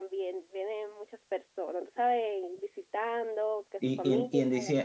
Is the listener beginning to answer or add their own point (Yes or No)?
Yes